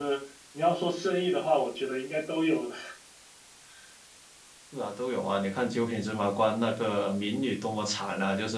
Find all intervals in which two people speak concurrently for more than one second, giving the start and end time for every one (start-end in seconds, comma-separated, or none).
none